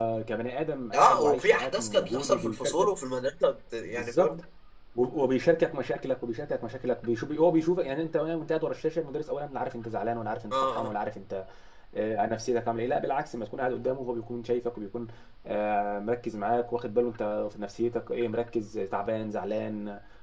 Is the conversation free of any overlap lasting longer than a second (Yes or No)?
No